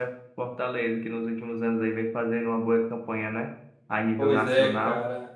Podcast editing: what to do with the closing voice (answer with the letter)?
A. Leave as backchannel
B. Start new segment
B